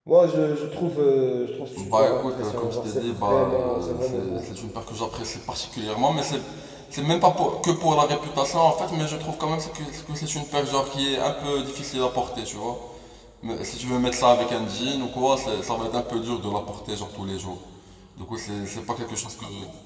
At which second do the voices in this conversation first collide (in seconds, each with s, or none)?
1.8 s